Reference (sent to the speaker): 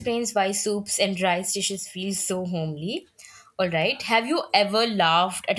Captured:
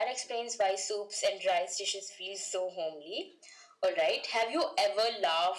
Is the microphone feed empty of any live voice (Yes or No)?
Yes